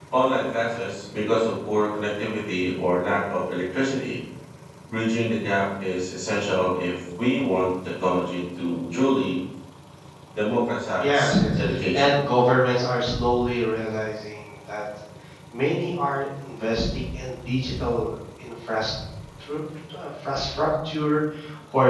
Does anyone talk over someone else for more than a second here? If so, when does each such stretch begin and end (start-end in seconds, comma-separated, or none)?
11.0-12.2